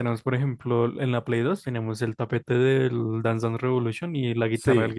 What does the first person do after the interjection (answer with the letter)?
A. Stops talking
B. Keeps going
A